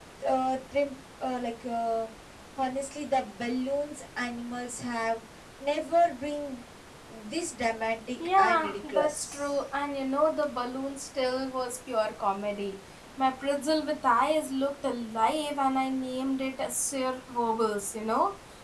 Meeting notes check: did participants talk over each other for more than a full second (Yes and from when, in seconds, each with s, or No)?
Yes, from 8.2 s